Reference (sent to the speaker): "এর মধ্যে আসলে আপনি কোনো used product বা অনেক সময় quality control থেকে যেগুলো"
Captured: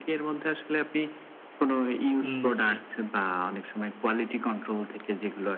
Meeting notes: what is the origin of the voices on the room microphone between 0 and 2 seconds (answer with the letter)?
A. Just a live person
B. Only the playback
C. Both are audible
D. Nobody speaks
B